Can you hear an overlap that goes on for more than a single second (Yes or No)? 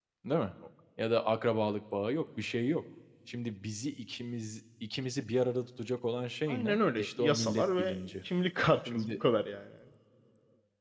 Yes